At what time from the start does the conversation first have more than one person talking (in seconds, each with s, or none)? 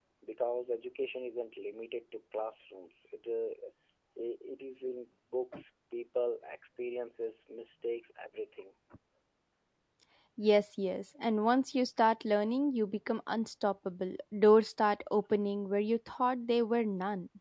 none